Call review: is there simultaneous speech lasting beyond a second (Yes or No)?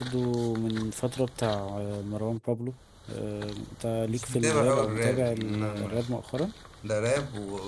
Yes